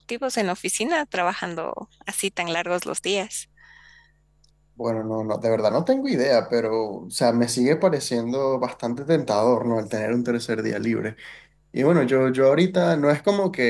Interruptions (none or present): none